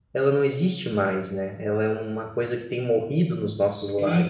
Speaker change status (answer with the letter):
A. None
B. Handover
B